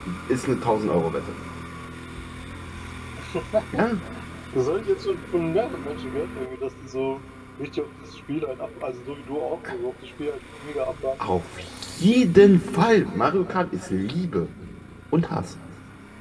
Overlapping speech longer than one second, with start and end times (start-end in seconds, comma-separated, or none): none